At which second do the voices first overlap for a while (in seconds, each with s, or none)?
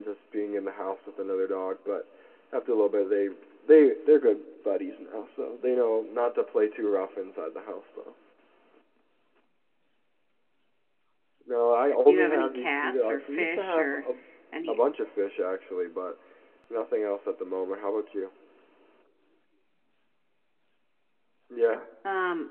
12.1 s